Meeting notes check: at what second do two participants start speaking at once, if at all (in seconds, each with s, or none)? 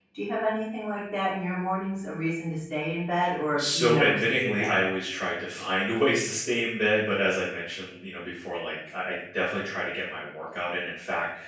3.6 s